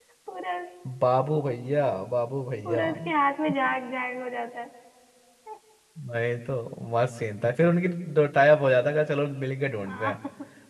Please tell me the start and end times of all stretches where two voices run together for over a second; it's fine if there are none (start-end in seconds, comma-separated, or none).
none